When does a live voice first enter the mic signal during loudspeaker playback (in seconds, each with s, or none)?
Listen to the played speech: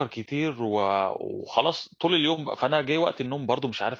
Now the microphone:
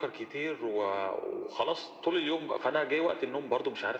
none